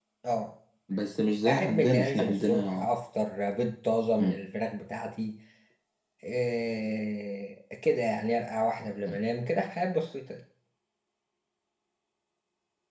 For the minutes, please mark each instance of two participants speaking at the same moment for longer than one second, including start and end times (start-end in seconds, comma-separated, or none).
1.5-2.9